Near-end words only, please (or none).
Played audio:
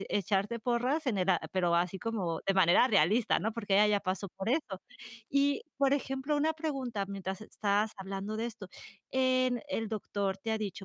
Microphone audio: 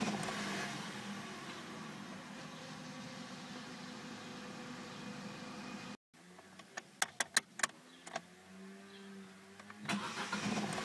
none